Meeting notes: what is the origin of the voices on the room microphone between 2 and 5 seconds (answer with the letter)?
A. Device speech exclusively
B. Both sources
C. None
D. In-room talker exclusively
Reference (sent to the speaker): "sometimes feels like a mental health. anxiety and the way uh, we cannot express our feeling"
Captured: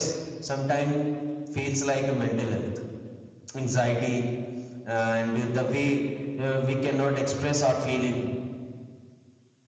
A